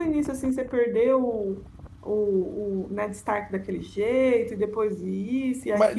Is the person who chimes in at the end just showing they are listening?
No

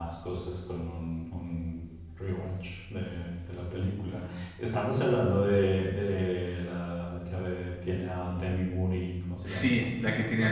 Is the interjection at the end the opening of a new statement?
Yes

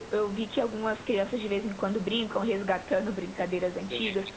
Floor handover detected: No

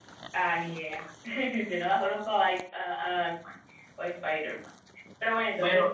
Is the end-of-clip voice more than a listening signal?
Yes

